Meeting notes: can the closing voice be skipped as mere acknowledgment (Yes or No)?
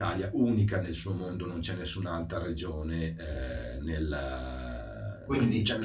Yes